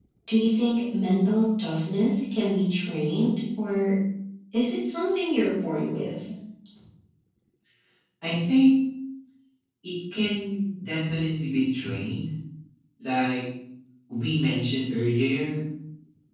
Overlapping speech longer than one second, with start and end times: none

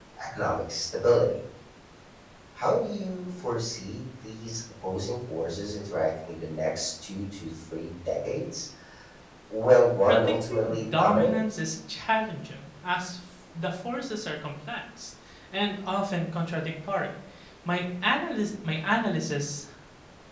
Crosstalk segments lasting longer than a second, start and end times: 10.1-11.3

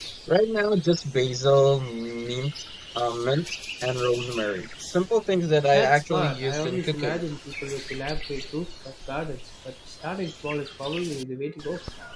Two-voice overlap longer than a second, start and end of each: 5.7-7.2

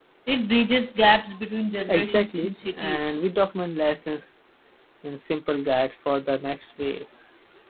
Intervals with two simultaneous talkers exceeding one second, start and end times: 1.9-3.2

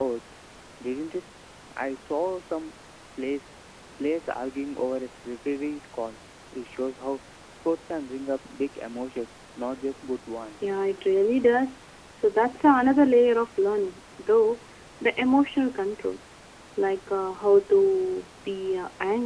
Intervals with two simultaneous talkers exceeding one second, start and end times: none

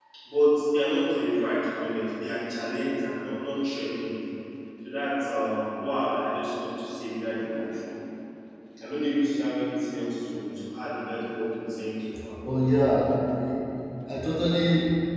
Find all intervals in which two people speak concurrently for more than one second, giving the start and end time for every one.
none

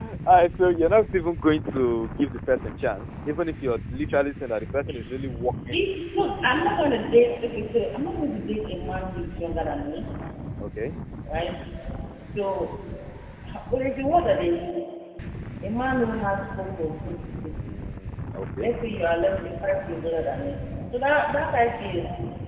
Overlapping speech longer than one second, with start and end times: none

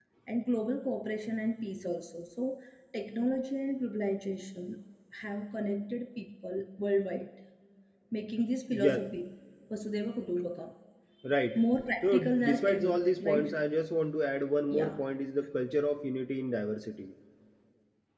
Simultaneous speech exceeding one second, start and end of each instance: 12.0-13.6

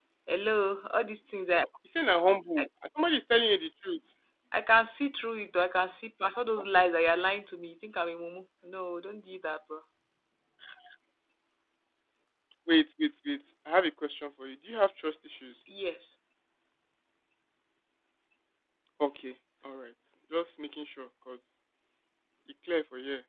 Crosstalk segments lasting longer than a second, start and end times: none

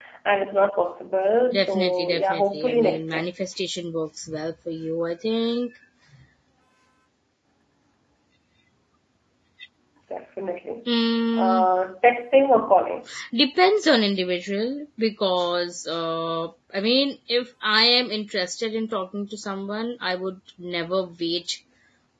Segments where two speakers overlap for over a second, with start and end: 1.5-3.2

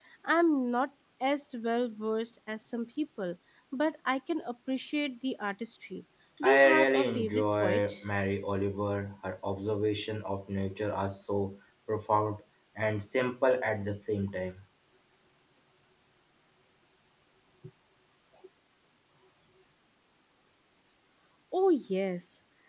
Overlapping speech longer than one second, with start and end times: 6.4-8.0

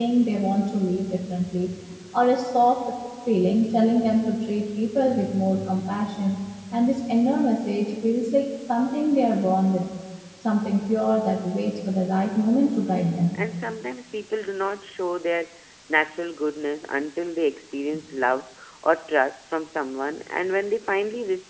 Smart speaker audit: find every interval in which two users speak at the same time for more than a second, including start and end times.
none

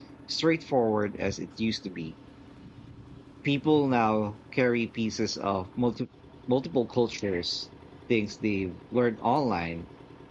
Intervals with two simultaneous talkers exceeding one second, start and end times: none

